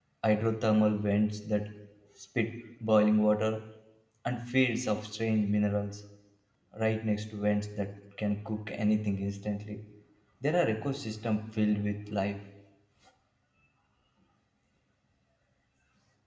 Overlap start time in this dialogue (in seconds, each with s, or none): none